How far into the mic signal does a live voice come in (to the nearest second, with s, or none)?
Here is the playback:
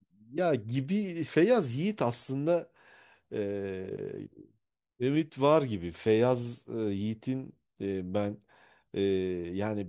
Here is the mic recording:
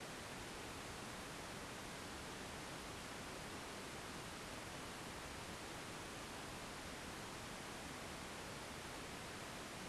none